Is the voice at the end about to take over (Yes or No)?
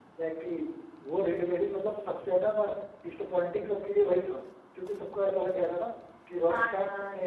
No